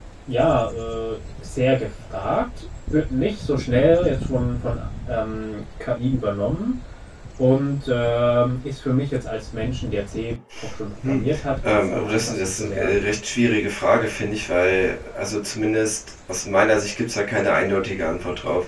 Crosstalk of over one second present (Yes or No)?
Yes